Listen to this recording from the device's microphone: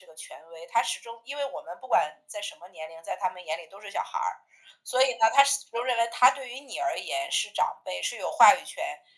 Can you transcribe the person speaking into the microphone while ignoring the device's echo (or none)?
none